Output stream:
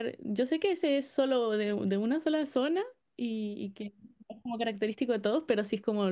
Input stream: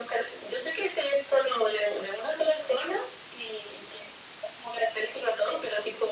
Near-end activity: none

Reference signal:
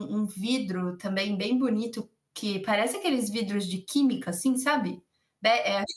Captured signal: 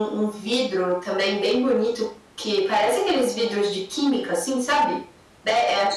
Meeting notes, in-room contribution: none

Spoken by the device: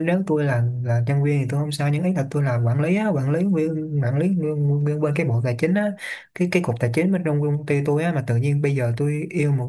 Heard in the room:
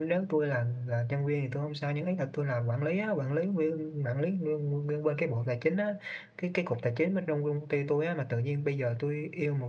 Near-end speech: none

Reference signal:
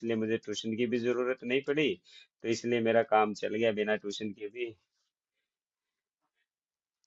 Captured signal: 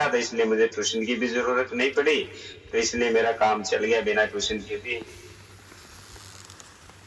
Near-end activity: none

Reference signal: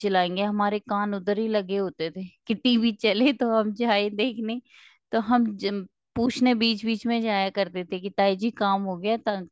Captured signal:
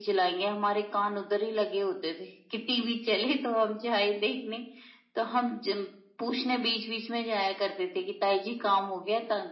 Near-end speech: none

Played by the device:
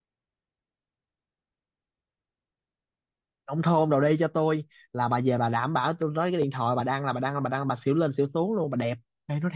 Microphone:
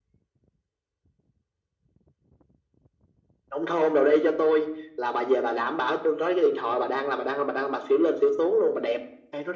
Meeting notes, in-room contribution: none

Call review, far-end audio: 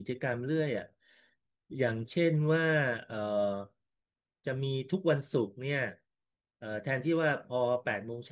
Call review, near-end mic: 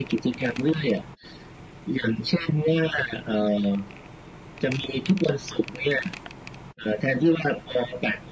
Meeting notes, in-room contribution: none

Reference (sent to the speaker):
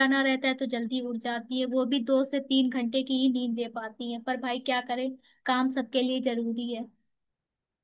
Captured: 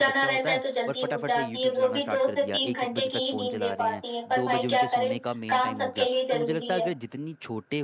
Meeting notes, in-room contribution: present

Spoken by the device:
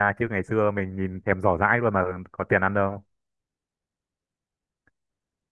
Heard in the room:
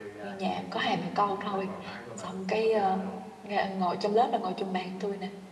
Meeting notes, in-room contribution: present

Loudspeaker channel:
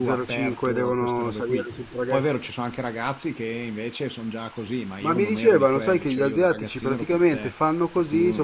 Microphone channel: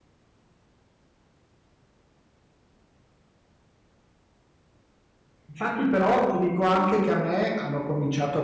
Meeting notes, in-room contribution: present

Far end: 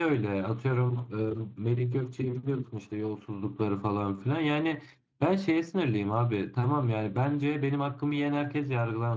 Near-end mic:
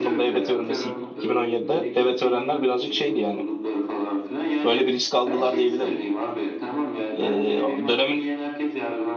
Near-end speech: present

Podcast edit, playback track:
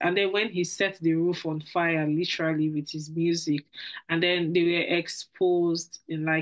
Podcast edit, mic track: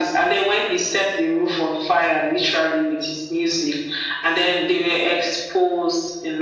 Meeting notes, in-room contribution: none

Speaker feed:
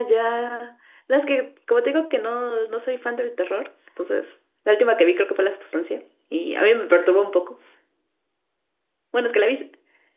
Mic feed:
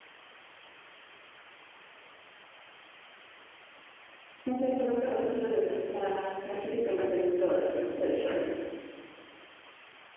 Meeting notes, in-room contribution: present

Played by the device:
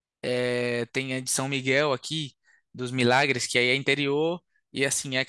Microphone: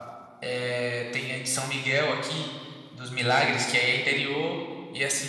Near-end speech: none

